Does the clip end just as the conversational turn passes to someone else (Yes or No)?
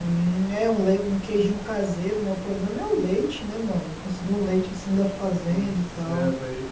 Yes